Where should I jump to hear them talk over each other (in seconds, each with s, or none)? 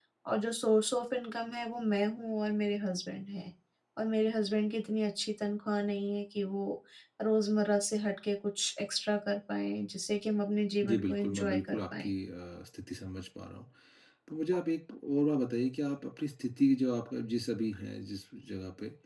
10.8 s